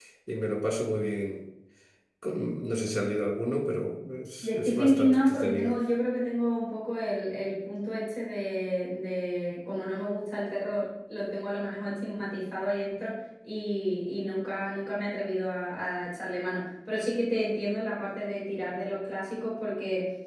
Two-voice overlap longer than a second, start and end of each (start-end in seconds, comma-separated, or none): 4.4-5.8